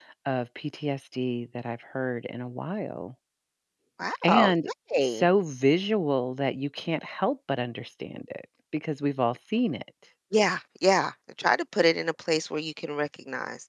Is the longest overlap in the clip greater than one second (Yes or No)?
No